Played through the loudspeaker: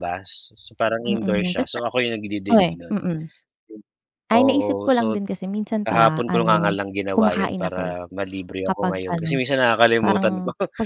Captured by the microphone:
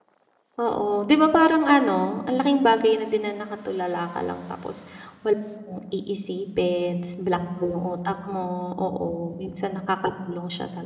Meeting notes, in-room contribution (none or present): present